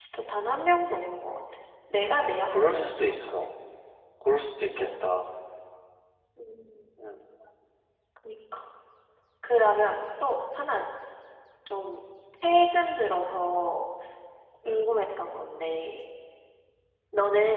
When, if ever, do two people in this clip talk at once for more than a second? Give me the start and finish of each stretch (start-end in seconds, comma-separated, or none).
2.0-3.3